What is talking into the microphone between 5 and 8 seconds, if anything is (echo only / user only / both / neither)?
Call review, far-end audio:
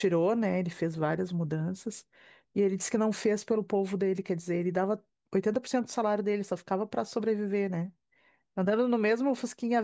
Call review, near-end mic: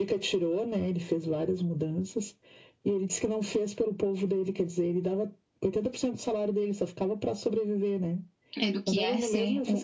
echo only